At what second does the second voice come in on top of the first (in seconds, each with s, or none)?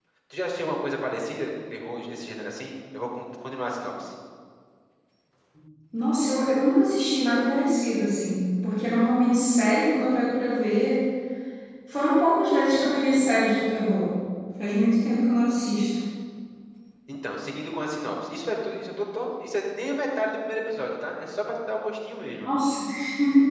none